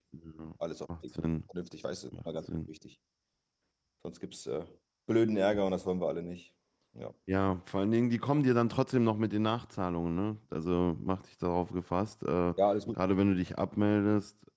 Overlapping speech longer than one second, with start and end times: none

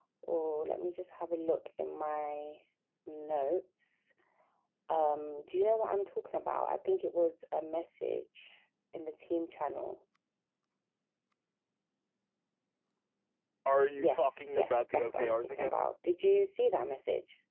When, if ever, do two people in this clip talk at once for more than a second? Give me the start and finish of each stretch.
14.0-15.7

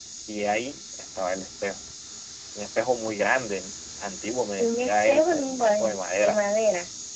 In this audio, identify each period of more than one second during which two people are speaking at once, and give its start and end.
4.6-6.4

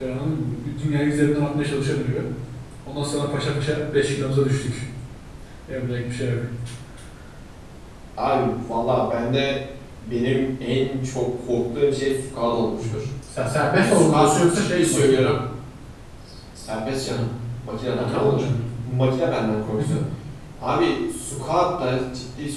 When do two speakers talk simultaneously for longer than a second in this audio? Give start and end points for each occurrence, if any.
13.7-15.3

